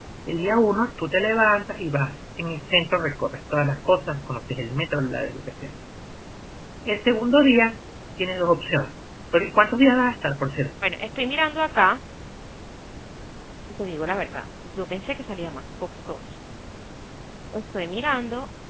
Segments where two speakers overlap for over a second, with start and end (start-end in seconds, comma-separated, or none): none